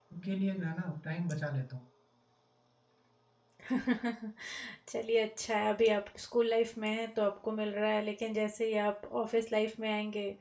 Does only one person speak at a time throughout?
Yes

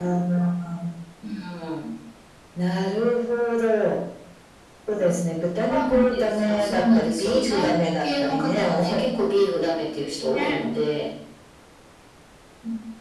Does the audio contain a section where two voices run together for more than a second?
Yes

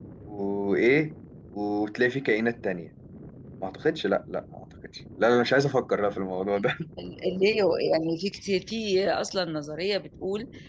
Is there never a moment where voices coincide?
Yes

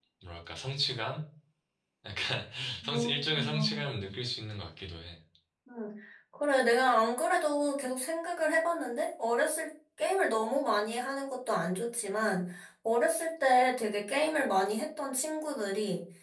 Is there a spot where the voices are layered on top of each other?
Yes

